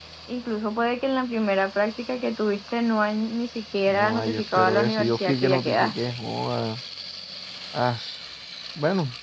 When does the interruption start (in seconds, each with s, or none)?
3.9 s